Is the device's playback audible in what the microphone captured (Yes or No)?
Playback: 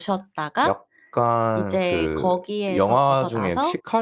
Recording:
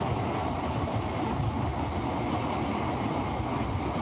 No